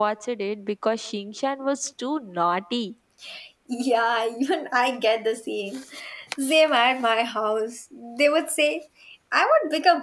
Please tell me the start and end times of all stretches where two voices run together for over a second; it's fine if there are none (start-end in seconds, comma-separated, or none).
none